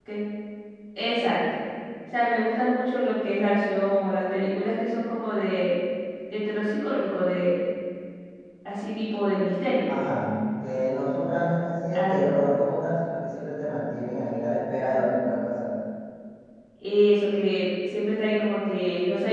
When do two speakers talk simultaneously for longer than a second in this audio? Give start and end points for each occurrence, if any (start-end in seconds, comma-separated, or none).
none